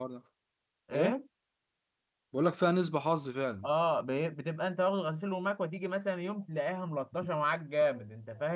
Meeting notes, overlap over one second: none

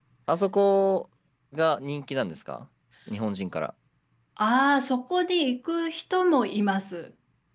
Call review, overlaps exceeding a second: none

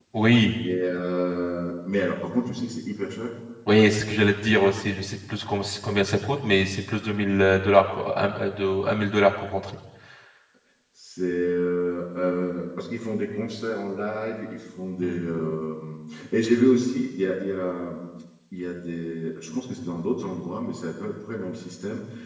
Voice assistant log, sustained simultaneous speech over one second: none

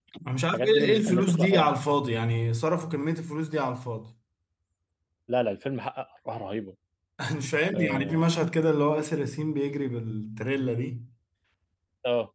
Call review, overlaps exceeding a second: present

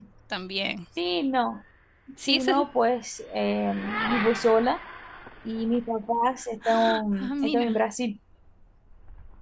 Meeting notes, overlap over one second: none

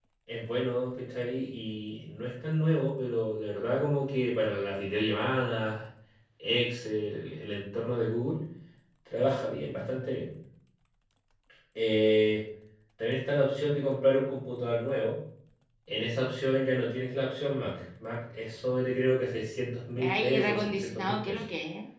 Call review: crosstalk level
present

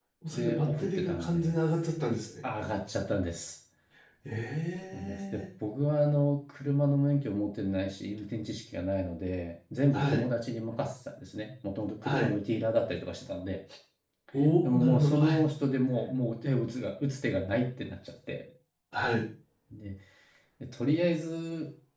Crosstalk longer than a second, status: present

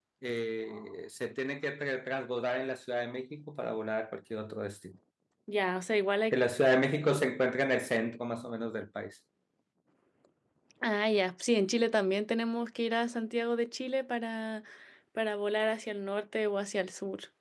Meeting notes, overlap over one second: none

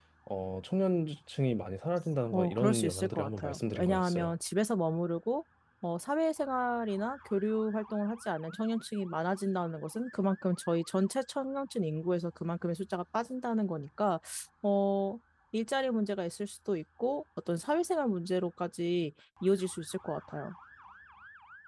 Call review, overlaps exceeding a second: present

